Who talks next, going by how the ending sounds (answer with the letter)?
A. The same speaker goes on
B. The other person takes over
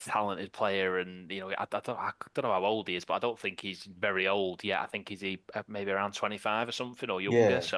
A